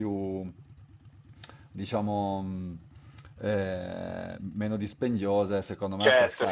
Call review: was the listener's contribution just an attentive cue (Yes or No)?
No